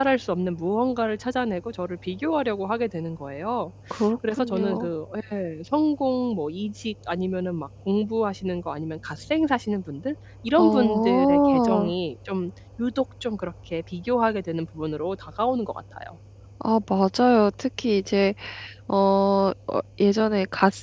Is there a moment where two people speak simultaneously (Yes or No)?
Yes